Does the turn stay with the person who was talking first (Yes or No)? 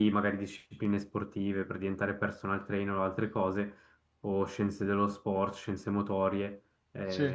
Yes